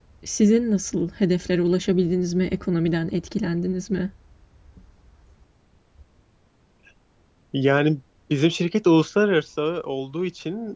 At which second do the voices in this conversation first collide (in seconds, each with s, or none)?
none